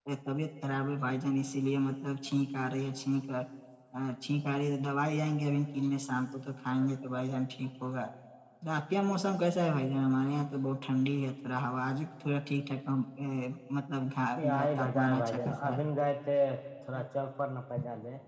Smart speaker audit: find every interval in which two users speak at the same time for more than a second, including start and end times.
14.4-15.8

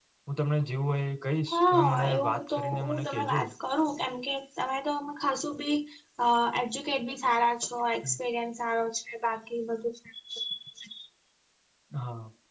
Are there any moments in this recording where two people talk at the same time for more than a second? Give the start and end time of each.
1.5-3.4

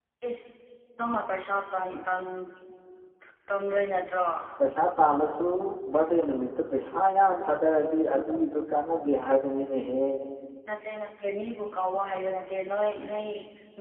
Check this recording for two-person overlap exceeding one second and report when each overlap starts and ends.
none

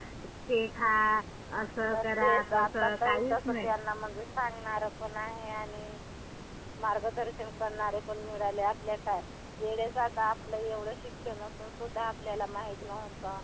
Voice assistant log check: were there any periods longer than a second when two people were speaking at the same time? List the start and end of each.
1.9-3.7

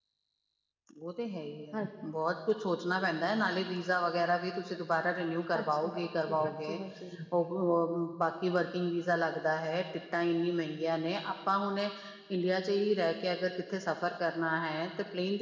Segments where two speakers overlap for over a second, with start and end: 5.5-6.8

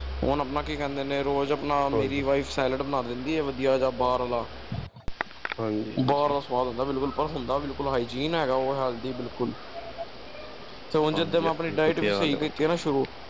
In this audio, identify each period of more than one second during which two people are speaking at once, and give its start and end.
11.1-12.5

